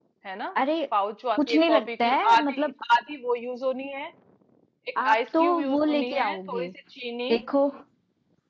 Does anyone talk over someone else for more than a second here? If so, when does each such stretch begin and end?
1.4-2.7, 5.0-6.7

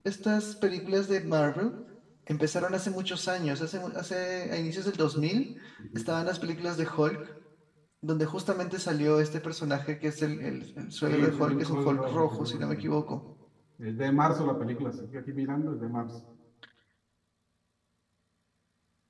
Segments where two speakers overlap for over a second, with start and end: 11.1-12.9

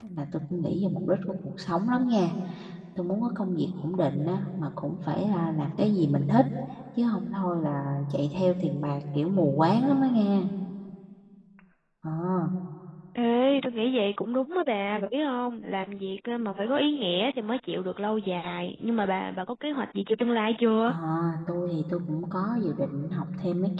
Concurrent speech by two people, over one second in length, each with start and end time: none

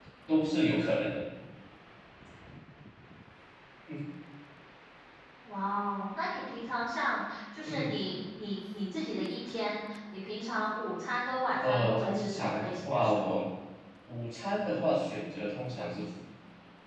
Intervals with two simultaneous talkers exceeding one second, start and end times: 11.6-13.3

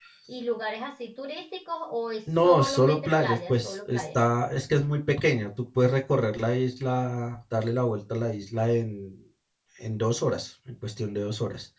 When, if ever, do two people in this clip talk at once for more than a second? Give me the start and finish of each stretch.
2.4-4.2

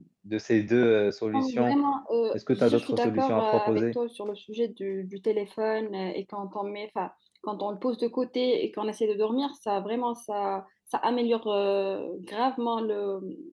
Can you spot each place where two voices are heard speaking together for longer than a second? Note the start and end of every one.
2.3-3.9

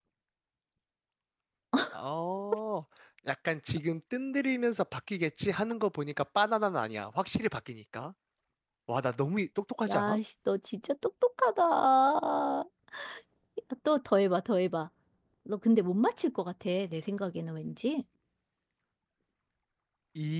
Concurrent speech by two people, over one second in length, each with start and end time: none

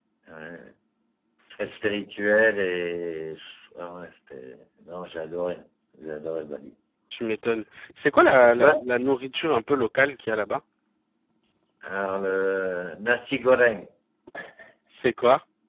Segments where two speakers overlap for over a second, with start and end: none

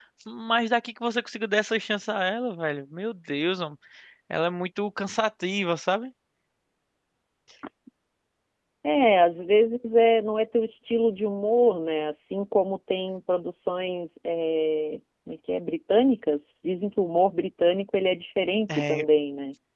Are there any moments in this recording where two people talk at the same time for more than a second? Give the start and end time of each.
none

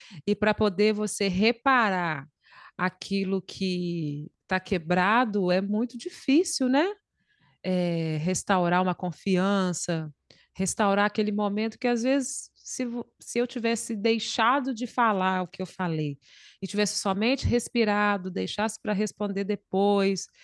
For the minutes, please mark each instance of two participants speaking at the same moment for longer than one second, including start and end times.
none

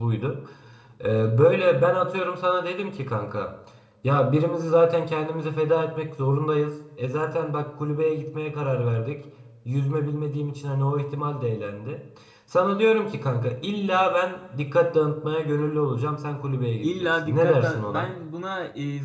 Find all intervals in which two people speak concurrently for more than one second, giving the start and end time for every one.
16.8-18.1

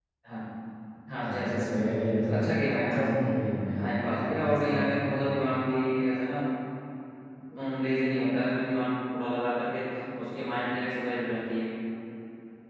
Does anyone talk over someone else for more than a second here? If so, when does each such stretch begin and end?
3.8-5.0

